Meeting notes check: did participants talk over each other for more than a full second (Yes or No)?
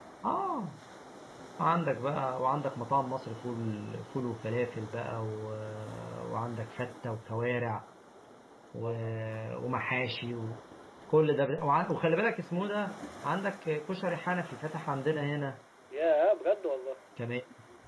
No